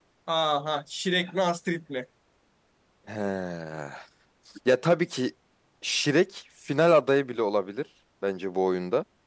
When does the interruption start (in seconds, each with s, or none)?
none